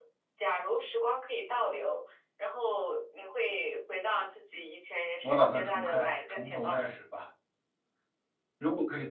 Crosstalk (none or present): present